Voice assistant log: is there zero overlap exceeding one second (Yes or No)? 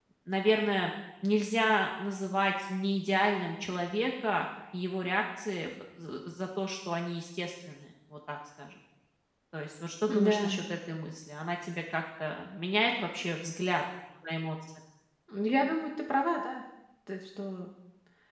Yes